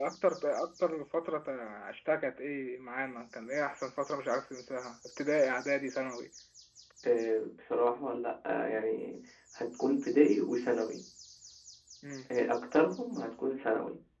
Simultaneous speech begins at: none

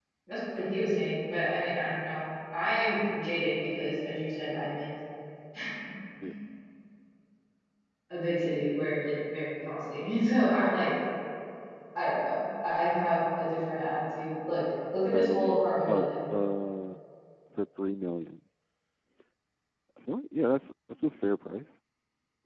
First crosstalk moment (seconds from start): 15.1 s

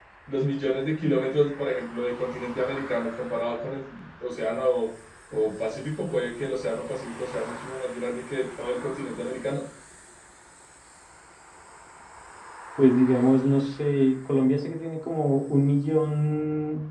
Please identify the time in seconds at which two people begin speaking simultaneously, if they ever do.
none

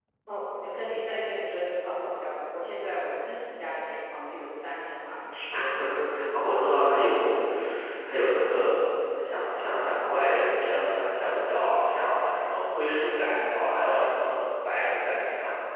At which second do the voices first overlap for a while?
none

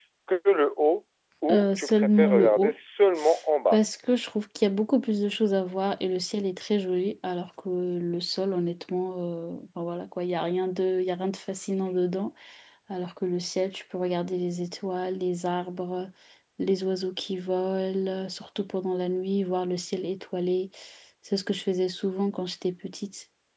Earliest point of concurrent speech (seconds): 1.5 s

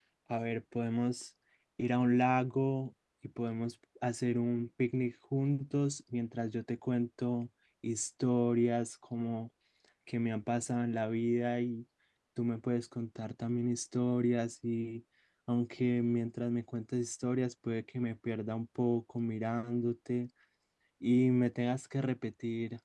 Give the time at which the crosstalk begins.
none

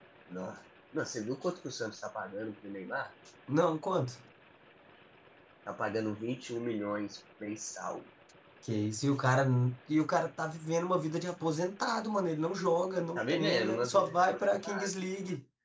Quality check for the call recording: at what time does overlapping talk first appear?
13.2 s

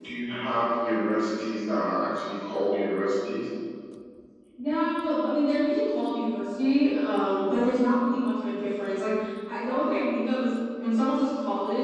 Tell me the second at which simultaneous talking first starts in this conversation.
none

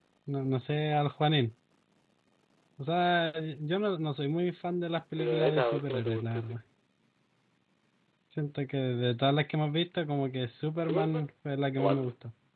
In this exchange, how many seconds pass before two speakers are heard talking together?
5.2 s

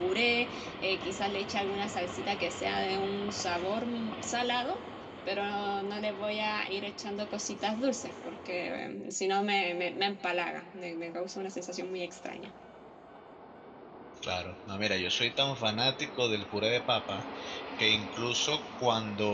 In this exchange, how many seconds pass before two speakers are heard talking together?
none

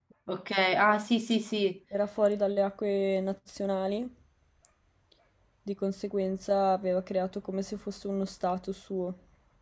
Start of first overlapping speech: none

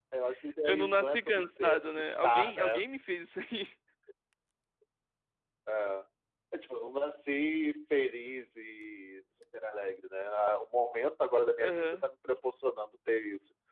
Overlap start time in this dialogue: 0.7 s

